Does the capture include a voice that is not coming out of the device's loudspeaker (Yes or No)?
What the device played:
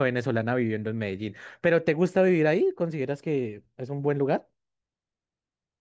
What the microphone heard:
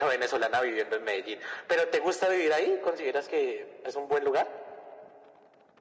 No